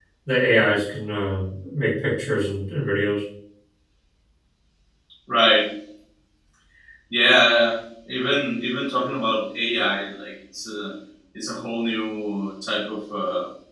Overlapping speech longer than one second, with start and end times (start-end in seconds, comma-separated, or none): none